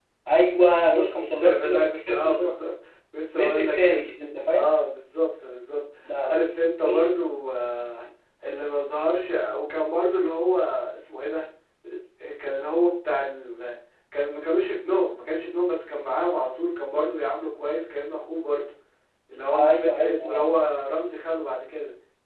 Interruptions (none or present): present